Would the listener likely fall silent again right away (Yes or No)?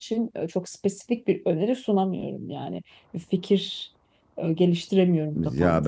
No